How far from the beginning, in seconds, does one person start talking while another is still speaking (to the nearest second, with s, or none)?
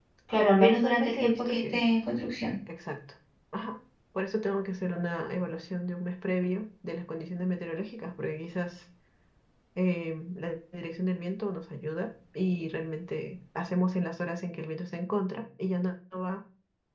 1 s